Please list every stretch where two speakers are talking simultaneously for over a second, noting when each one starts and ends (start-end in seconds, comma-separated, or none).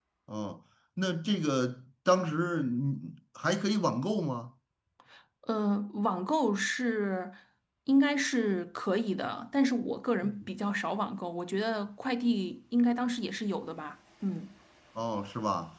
none